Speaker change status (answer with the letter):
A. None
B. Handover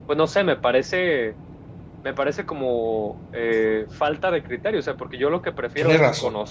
A